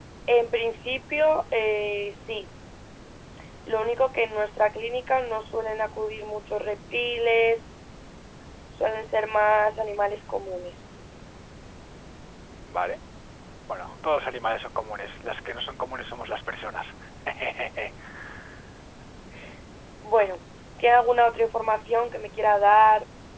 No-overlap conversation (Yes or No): Yes